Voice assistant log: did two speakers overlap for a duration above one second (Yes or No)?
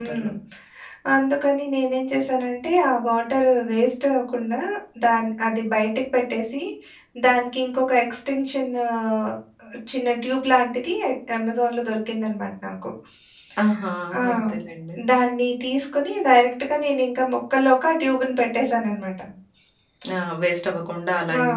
No